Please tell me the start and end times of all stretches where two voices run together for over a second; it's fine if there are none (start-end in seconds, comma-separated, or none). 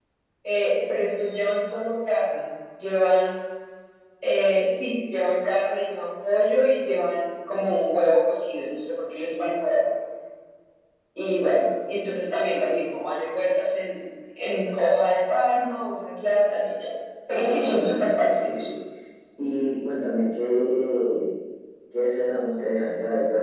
17.3-18.7